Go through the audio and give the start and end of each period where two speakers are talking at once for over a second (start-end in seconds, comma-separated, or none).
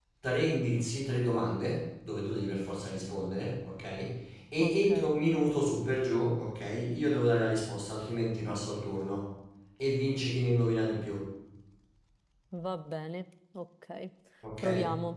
none